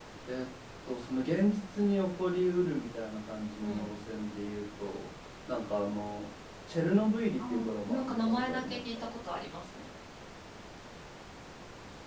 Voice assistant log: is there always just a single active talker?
No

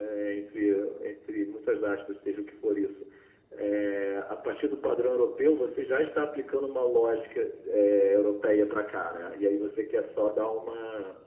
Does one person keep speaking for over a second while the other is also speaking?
No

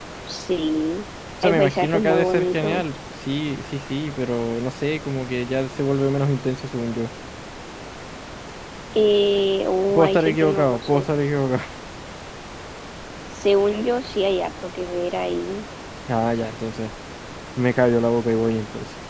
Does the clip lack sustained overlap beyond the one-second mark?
No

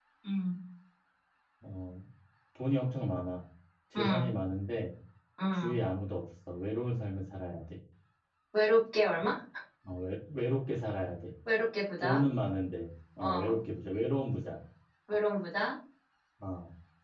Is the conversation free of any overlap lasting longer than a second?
Yes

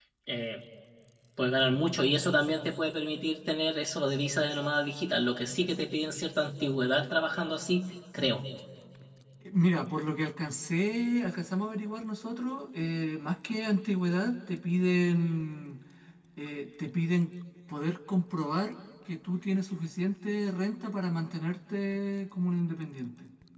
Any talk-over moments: No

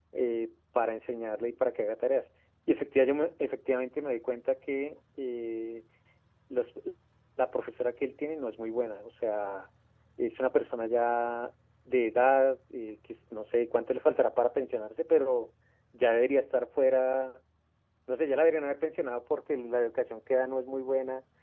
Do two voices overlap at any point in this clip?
No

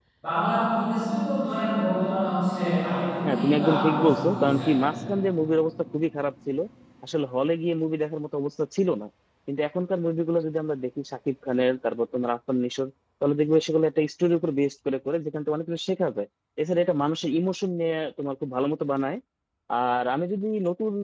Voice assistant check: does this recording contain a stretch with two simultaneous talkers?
Yes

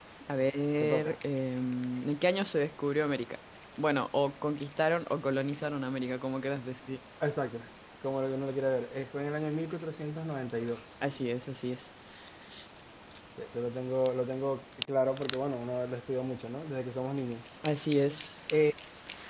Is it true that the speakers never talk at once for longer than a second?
Yes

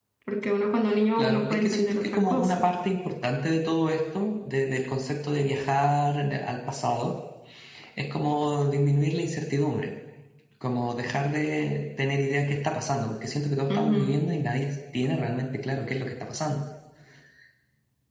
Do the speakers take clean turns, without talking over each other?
No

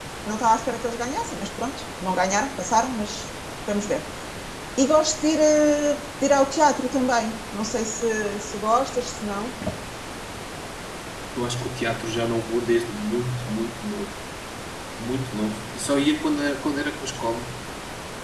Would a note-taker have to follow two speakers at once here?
No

